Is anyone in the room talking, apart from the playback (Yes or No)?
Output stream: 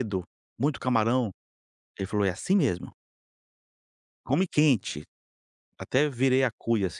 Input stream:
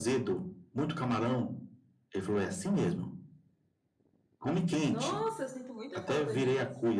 Yes